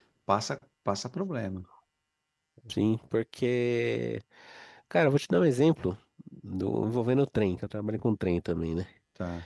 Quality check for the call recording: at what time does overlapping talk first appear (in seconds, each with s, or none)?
none